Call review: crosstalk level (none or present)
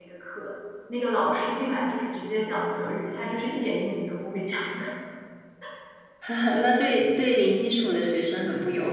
none